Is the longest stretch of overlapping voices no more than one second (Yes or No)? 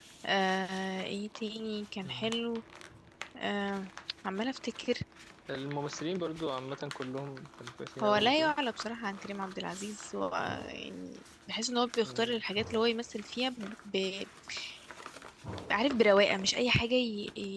Yes